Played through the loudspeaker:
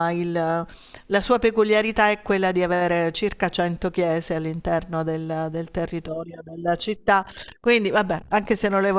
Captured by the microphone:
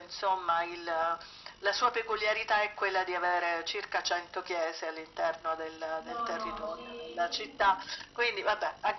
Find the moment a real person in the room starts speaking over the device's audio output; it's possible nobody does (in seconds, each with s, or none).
6.0 s